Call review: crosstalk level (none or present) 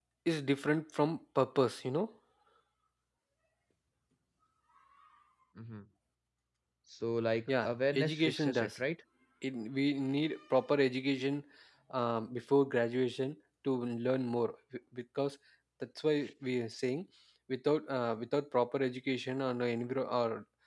present